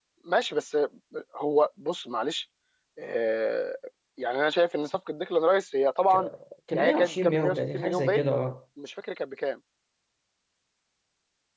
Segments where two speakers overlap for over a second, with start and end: 6.7-8.3

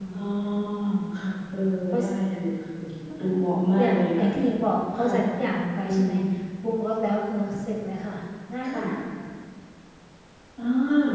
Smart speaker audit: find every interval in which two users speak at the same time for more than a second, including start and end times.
none

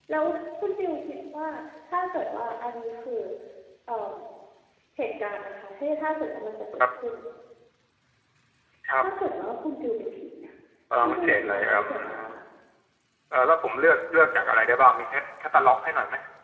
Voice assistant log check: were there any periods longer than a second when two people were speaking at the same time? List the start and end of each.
11.0-12.4

